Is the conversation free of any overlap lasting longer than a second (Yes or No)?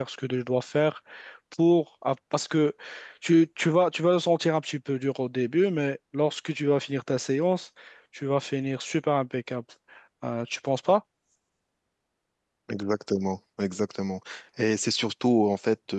Yes